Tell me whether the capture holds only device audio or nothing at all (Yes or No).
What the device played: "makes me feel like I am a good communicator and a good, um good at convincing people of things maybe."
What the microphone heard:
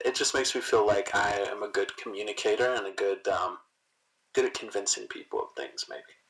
Yes